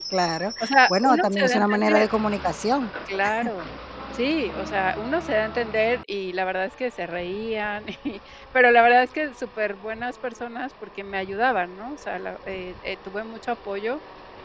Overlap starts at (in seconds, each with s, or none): 0.6 s